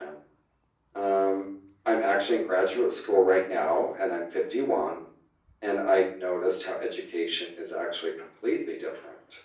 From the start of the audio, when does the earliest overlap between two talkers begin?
none

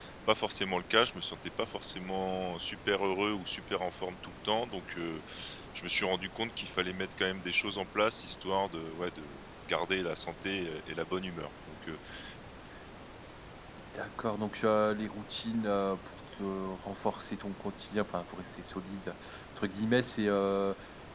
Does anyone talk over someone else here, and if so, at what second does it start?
none

